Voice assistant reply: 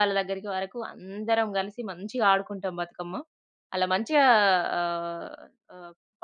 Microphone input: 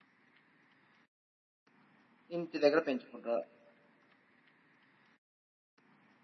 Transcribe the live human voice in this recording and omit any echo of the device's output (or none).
ఇంటి దగ్గర పెంచుకుంటరా?